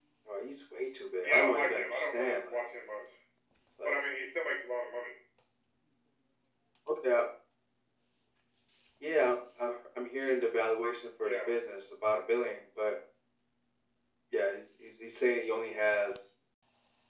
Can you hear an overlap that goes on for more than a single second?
Yes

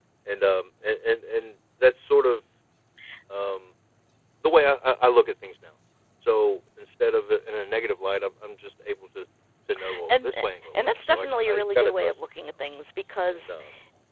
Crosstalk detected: Yes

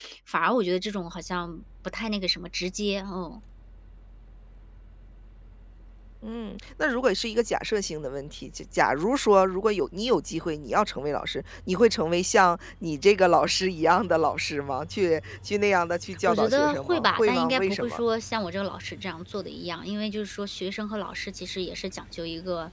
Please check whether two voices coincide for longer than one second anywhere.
Yes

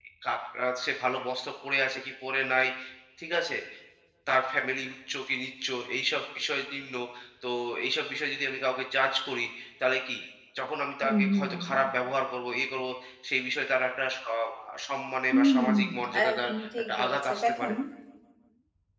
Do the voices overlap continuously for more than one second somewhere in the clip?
Yes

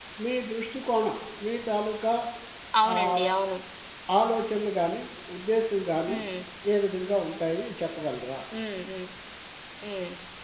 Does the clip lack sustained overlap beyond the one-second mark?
Yes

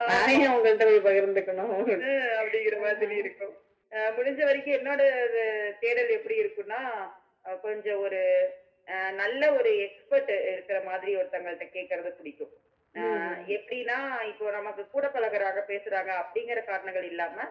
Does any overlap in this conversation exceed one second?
No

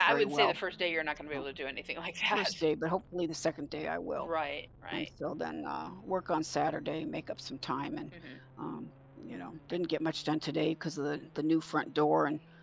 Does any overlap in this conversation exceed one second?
No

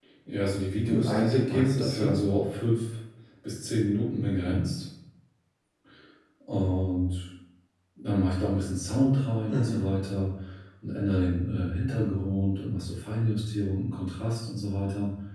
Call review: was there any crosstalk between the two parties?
Yes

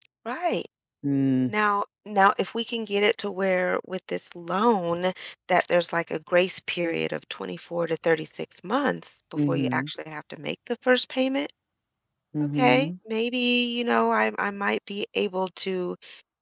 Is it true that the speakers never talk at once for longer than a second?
Yes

